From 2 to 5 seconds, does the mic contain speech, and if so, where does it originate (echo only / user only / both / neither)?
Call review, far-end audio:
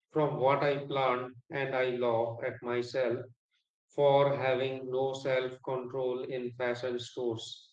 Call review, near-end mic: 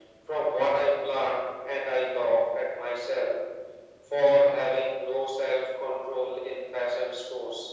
echo only